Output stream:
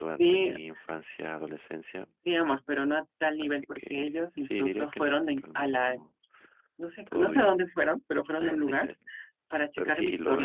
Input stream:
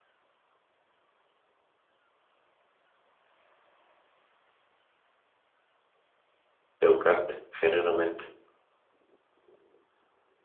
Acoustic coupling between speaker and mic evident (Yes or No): No